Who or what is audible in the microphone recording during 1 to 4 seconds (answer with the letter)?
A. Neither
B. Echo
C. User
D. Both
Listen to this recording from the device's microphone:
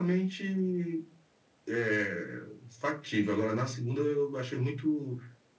B